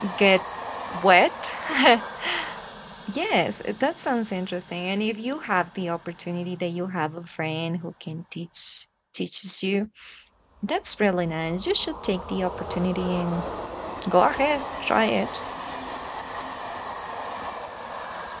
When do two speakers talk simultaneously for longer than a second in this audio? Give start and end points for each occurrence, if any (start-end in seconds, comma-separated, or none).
none